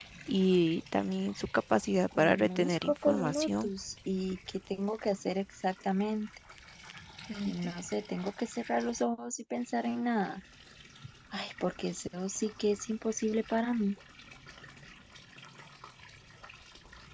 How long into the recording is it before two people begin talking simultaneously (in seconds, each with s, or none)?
2.2 s